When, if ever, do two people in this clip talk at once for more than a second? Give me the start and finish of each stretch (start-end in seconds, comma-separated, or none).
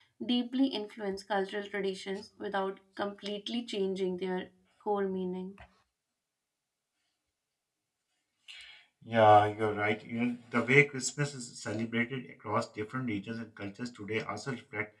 none